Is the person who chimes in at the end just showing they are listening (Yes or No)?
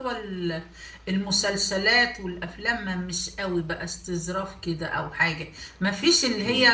Yes